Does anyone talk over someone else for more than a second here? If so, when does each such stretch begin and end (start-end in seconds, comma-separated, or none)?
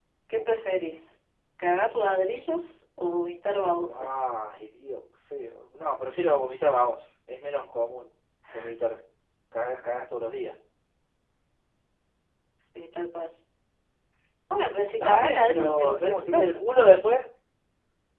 15.0-16.5